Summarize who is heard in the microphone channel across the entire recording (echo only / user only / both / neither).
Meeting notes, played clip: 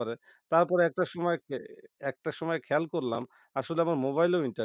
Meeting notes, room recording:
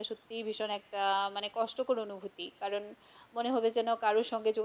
user only